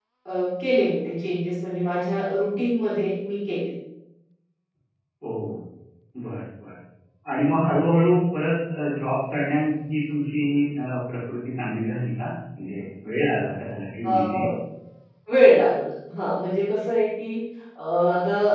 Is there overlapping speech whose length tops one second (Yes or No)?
No